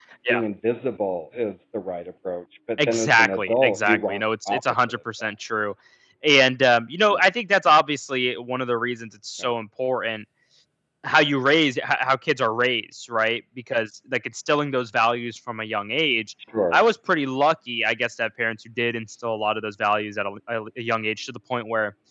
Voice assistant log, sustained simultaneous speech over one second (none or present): present